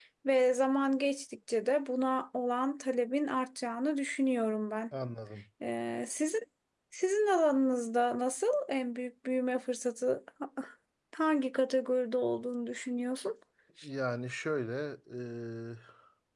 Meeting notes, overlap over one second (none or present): none